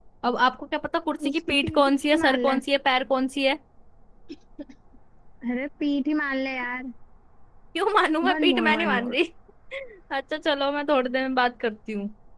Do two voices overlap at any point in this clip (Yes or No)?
Yes